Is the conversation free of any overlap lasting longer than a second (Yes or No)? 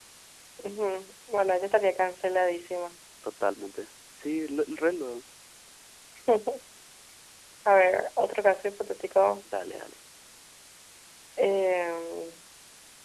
Yes